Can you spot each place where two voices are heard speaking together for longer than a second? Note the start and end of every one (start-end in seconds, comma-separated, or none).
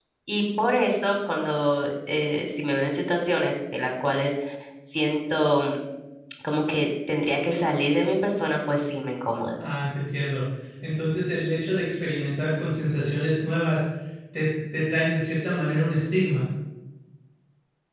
none